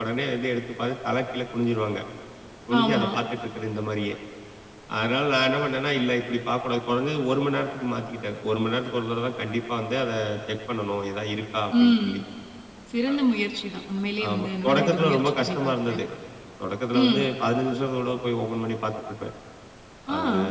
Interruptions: present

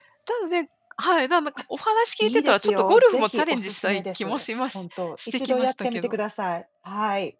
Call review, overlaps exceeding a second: present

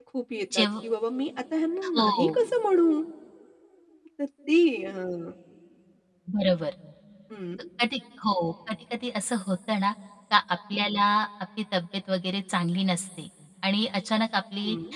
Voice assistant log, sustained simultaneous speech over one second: none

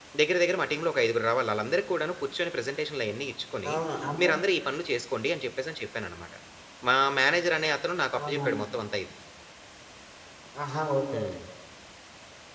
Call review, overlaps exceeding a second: none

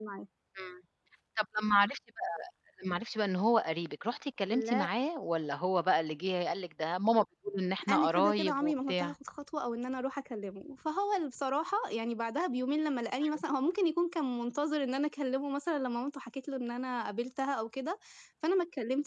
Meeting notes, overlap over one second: present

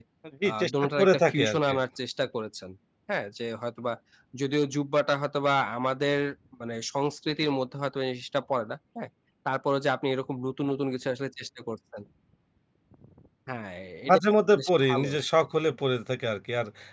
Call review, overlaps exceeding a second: present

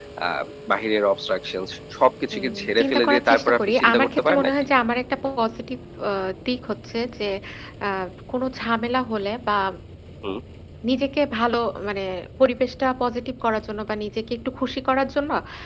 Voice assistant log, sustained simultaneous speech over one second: present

